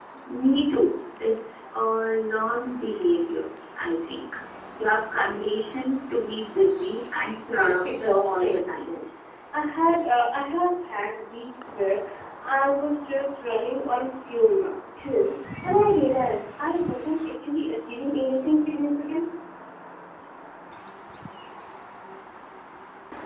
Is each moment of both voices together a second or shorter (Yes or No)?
No